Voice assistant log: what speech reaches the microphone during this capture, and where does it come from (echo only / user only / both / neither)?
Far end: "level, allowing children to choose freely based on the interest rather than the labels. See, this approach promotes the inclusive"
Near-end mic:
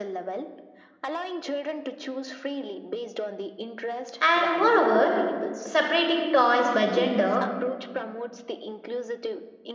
both